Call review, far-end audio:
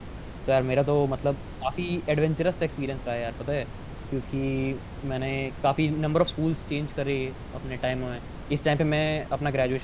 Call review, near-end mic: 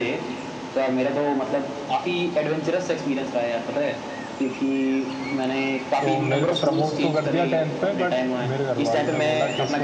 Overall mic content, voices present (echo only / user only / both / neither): both